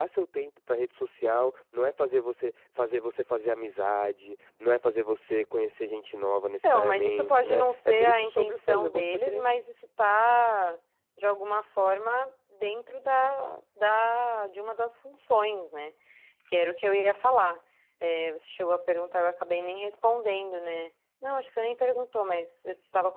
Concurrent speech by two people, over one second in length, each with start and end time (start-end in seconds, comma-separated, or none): 6.6-9.4